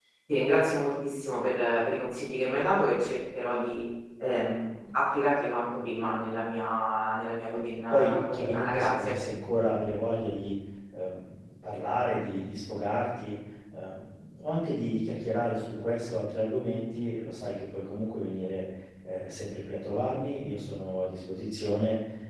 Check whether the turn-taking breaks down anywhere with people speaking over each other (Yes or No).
Yes